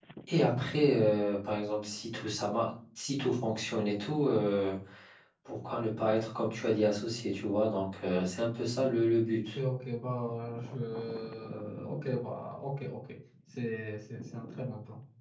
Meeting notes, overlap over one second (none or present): none